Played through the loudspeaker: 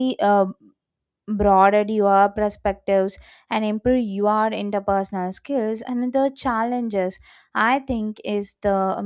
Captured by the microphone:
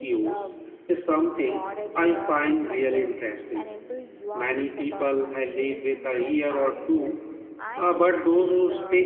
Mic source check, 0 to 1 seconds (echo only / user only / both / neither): both